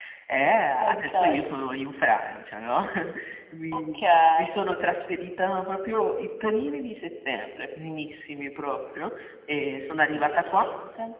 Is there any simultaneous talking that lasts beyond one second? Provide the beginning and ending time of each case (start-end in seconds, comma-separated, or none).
none